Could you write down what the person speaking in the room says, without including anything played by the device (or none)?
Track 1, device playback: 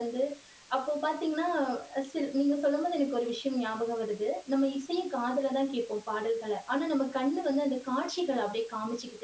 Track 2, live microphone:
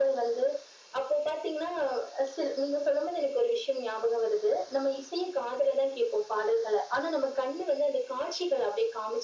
none